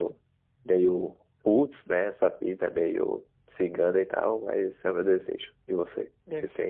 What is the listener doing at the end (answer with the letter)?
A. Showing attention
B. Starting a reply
B